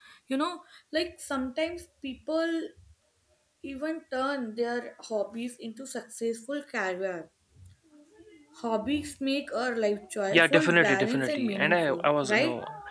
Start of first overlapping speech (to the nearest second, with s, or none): 10 s